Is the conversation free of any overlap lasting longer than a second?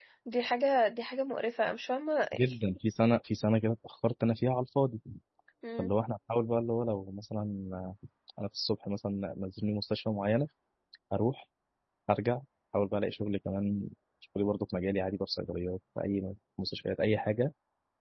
Yes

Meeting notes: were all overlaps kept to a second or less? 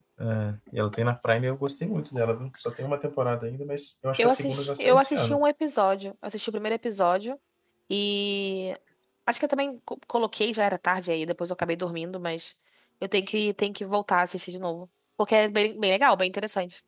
No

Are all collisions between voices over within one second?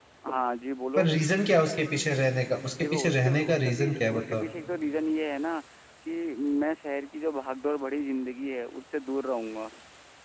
No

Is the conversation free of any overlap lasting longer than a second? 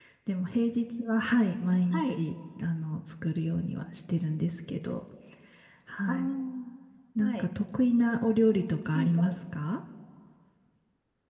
Yes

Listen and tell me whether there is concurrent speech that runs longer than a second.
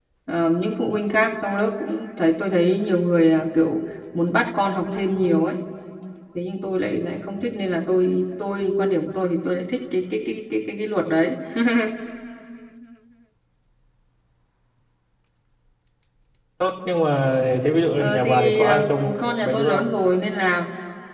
Yes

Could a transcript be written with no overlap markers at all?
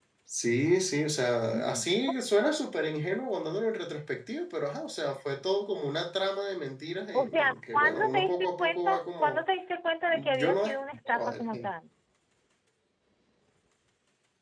No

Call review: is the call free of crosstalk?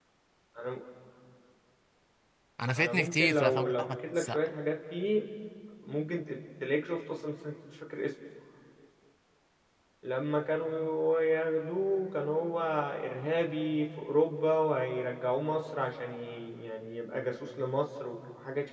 No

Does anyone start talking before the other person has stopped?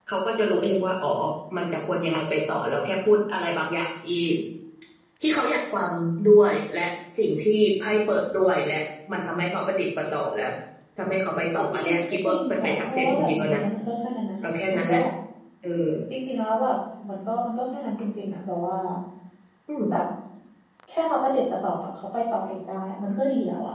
Yes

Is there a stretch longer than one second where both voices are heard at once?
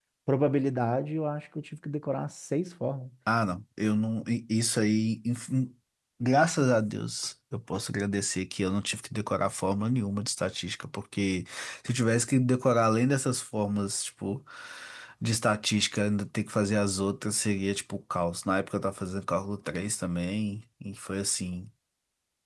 No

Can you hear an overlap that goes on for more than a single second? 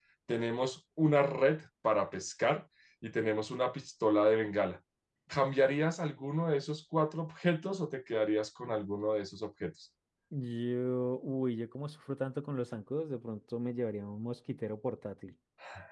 No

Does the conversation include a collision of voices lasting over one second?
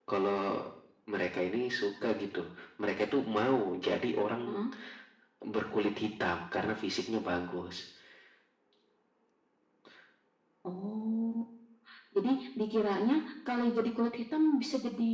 No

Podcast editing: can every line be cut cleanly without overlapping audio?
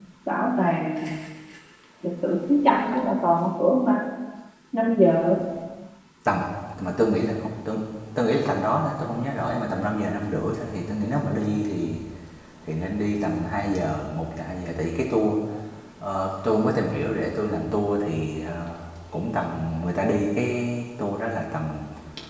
Yes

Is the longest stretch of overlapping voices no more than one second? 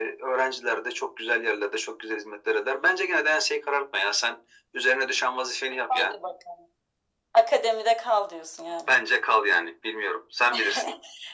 Yes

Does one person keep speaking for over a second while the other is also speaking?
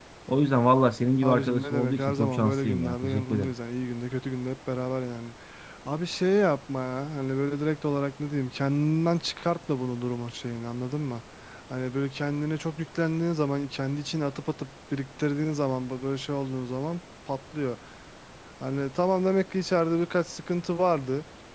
Yes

